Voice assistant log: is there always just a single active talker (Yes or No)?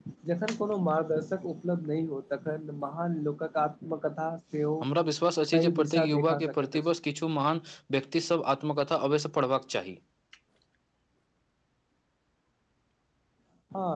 No